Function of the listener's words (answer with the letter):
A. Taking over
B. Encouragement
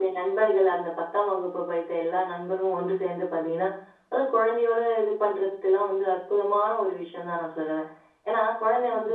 B